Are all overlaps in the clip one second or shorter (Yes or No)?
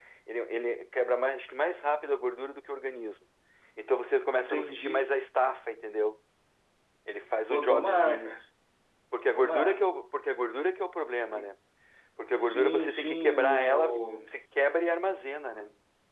No